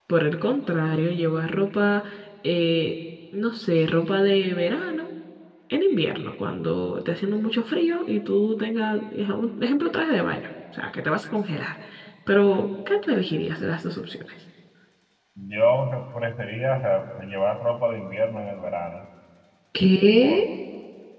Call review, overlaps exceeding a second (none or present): none